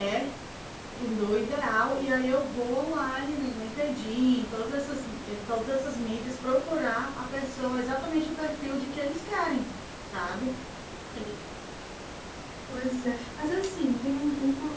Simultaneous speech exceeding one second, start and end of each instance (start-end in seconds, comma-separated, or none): none